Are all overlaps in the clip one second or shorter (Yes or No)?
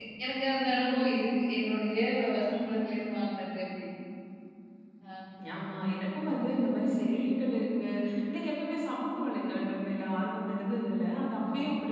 Yes